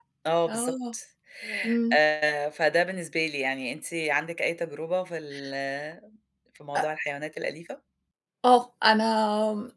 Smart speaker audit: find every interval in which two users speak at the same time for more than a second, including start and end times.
none

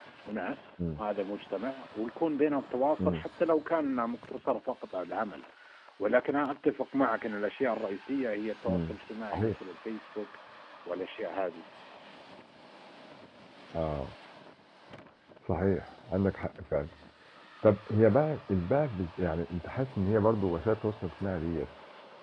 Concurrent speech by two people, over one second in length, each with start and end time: none

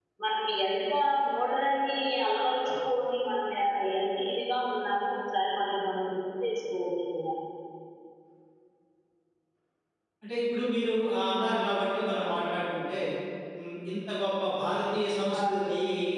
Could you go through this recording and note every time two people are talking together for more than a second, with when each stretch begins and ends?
none

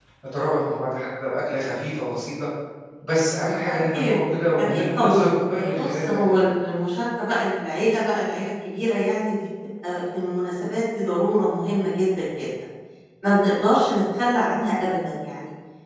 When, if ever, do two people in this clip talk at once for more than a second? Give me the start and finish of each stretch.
4.6-6.5

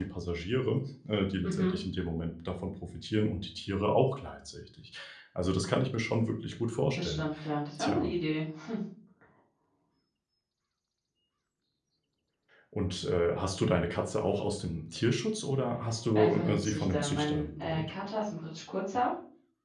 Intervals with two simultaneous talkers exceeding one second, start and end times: 16.2-17.9

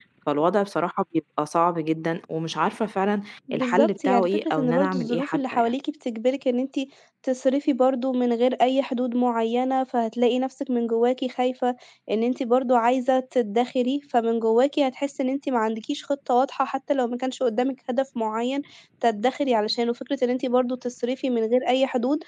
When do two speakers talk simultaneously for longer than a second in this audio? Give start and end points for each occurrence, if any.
3.5-5.7

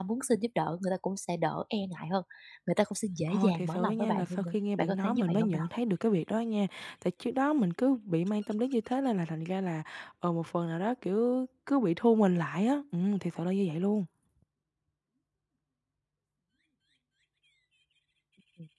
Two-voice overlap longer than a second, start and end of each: 3.3-5.6

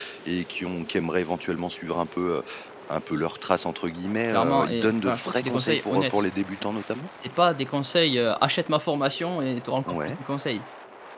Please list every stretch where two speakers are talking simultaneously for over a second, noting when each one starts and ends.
4.2-6.2

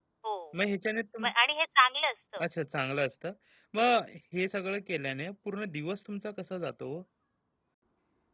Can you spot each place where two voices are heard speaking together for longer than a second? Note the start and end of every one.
none

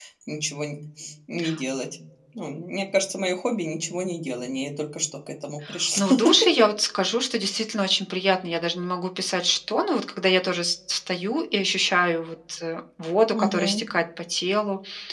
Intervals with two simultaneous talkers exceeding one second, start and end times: none

